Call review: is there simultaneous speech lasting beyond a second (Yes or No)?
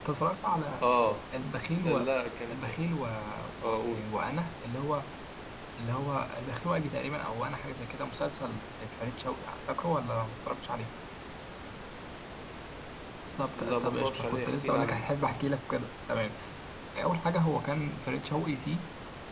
Yes